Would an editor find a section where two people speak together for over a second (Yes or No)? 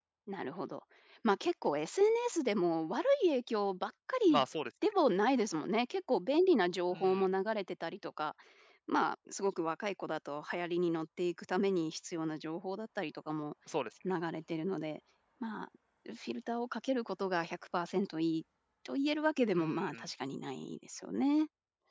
No